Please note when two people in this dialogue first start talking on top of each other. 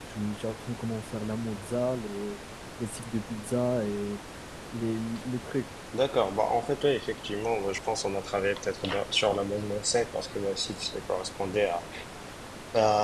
none

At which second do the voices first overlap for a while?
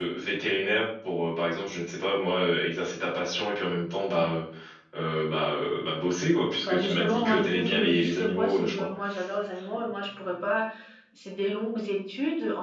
7 s

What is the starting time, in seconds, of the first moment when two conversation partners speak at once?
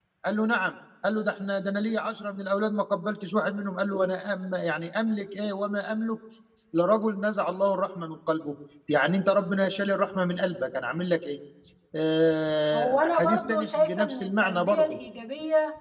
13 s

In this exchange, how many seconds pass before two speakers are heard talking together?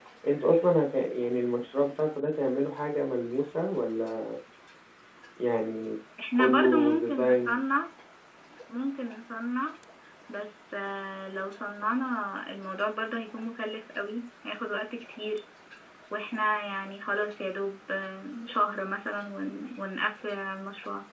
6 s

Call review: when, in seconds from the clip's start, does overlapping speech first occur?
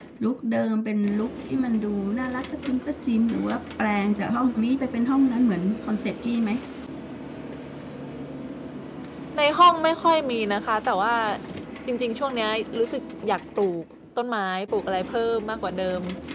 none

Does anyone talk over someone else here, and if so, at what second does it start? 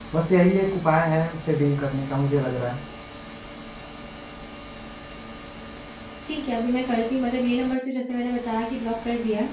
none

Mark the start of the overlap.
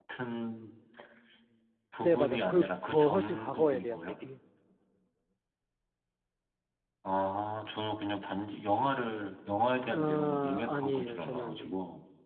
2 s

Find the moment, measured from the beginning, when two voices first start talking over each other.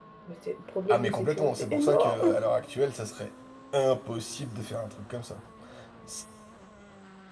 1 s

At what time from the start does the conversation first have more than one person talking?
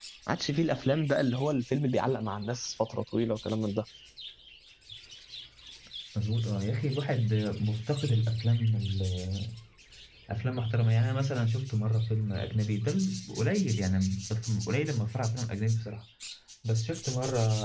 none

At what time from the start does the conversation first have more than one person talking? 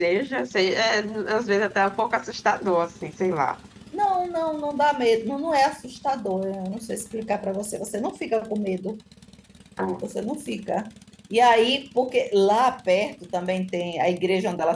none

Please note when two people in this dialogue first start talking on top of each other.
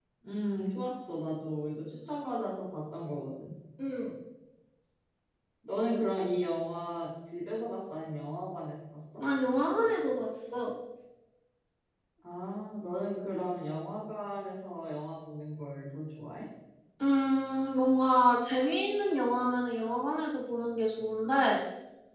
none

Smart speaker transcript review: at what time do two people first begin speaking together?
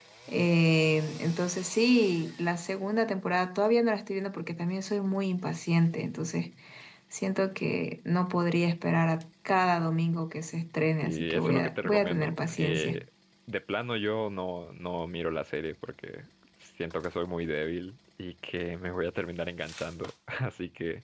11 s

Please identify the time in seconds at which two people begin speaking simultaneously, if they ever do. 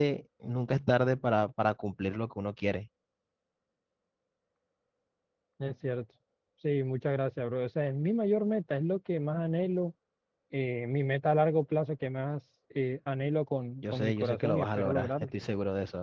14 s

